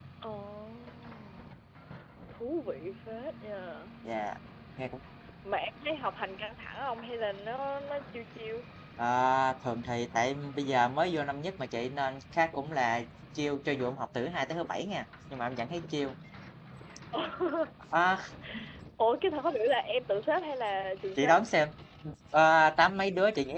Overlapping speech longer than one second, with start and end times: none

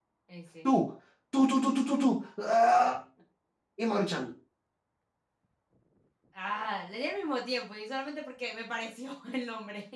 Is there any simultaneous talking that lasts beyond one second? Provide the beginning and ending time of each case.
none

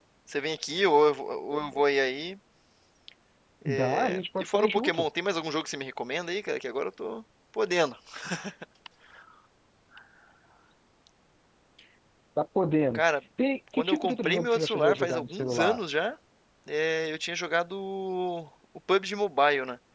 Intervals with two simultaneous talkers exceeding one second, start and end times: 3.6-5.0, 13.7-15.8

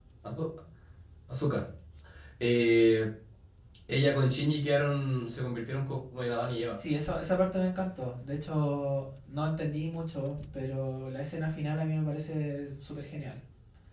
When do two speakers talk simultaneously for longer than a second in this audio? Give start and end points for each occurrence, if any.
none

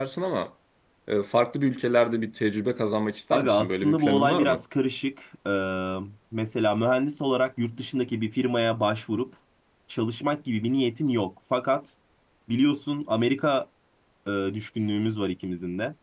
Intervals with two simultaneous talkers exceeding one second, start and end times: 3.3-4.6

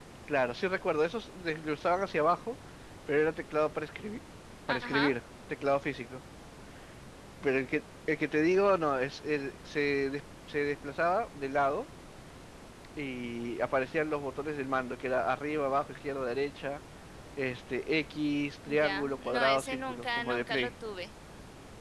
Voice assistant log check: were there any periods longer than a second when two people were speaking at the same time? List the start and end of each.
18.7-20.7

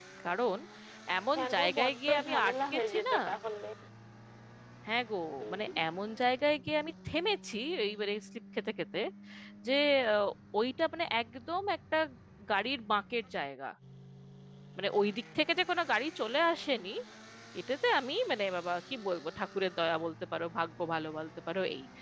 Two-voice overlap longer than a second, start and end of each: 1.4-3.1

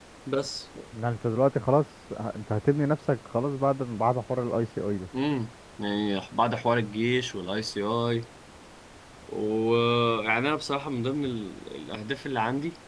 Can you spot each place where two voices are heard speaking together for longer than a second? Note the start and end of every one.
none

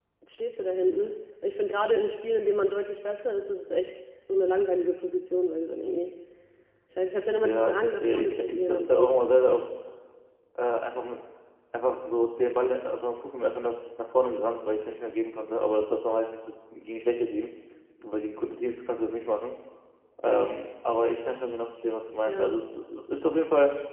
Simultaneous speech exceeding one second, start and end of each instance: 7.4-9.1

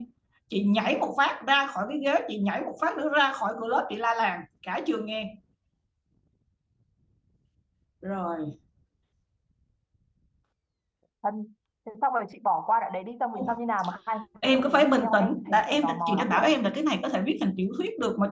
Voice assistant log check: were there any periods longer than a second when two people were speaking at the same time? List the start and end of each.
14.4-16.5

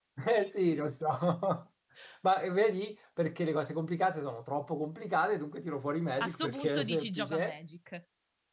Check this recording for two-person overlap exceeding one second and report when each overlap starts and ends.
6.2-7.5

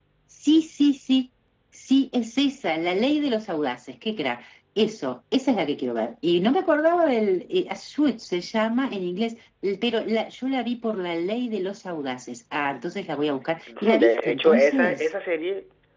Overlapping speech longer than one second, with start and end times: 13.7-15.0

